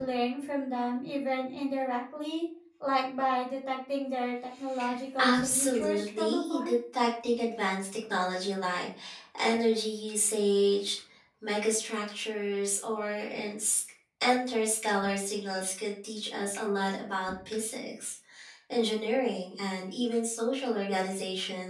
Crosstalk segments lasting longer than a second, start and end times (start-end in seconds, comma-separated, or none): 5.2-6.7